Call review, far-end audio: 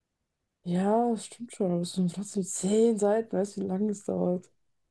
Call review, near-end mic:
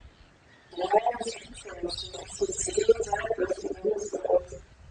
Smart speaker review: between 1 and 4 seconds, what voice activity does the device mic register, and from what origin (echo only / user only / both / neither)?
echo only